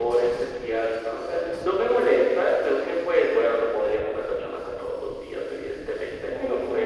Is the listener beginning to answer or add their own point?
No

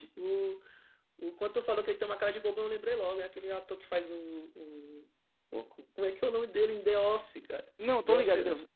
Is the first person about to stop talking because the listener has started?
Yes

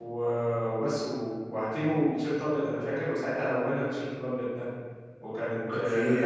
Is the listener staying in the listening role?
No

